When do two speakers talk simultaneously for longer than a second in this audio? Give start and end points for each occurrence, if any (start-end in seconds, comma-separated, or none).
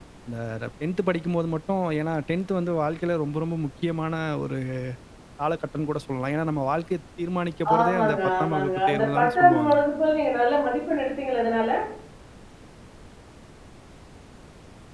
7.8-9.8